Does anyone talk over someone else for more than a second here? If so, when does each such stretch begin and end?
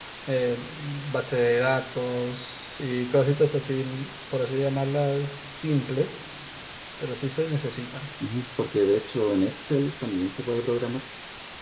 none

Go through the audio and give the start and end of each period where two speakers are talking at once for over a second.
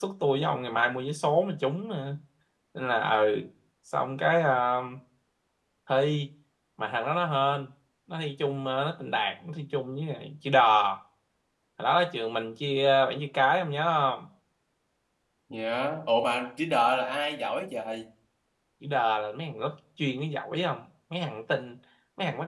none

